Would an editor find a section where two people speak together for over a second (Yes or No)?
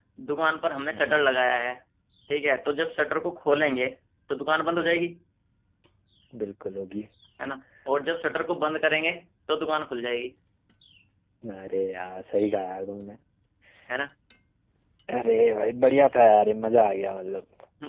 No